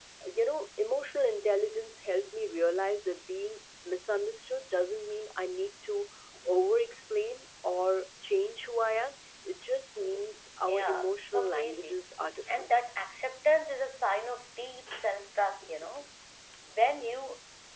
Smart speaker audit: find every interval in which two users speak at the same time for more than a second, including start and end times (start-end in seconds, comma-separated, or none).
10.6-12.0